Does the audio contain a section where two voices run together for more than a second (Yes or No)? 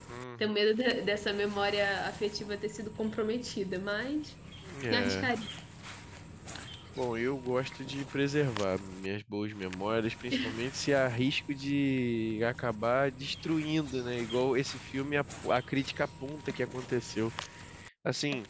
No